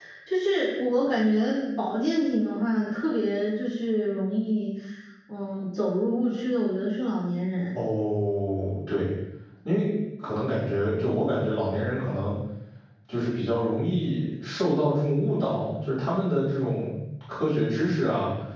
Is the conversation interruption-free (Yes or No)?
Yes